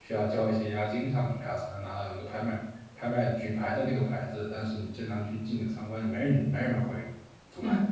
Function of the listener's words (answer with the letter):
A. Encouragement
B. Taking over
B